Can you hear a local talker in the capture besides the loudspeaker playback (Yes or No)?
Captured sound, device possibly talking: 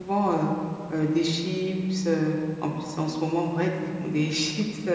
Yes